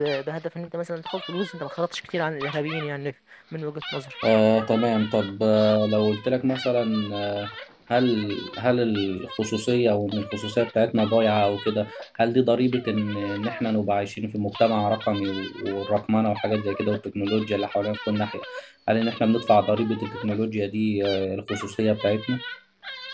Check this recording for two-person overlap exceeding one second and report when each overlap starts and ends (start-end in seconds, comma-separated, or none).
none